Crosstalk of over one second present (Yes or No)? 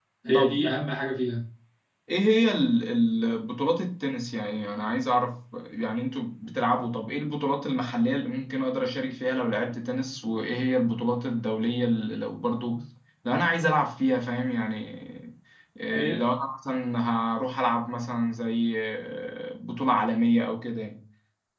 No